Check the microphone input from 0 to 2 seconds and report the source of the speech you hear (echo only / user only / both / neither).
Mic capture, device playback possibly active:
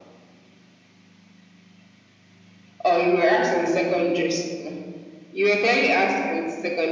neither